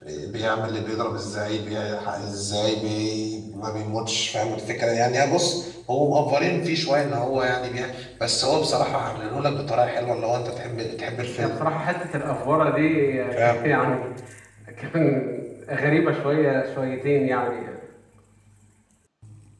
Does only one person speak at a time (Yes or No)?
Yes